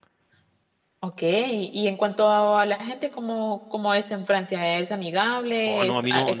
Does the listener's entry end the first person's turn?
Yes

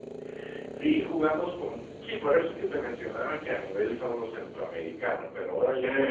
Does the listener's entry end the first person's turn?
No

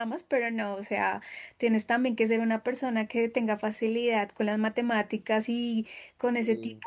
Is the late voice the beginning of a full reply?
No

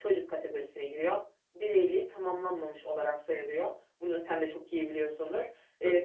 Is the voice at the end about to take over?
No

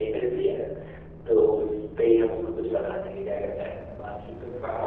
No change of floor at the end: No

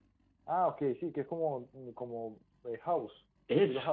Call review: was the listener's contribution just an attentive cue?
No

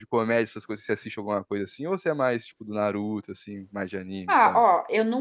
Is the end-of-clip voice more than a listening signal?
Yes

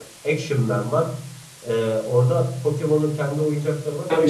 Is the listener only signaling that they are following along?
No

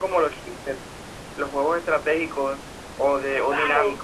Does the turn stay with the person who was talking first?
No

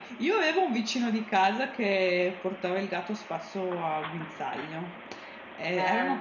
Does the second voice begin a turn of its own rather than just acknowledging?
No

